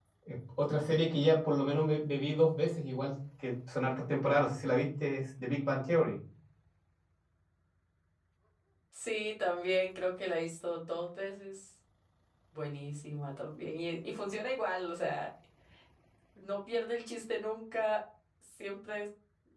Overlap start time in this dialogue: none

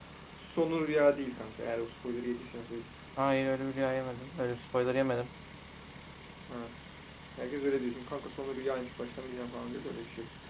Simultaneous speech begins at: none

